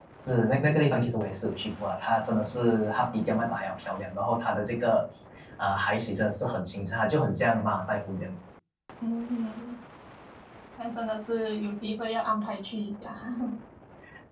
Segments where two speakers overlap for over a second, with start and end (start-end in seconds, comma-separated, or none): none